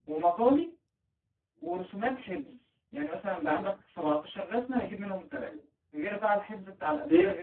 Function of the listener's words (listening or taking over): taking over